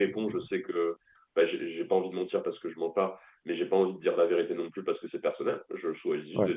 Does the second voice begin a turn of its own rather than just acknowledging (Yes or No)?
No